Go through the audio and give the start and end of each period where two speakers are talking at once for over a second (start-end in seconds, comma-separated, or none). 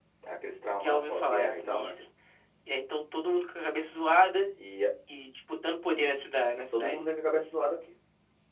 0.8-2.0